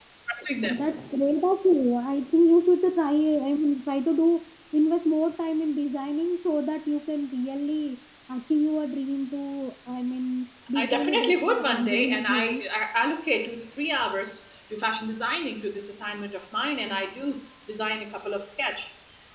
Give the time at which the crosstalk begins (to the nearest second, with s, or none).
11 s